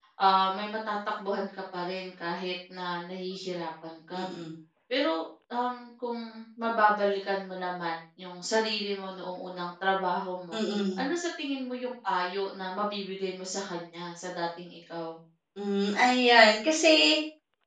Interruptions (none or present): none